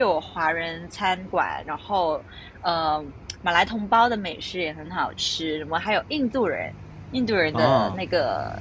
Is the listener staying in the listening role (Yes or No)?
Yes